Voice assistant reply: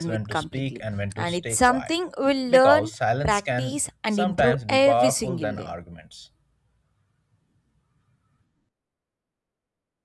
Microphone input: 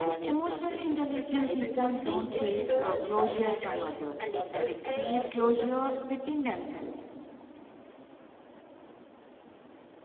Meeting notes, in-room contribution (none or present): present